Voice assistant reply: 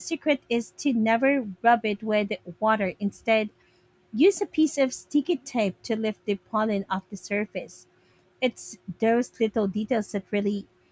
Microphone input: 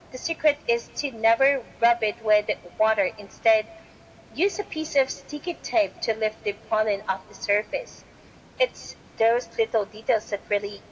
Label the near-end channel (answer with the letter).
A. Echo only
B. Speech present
A